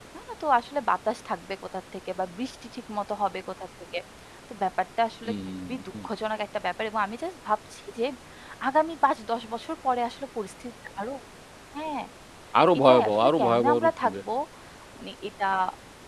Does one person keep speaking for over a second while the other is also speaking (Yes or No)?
Yes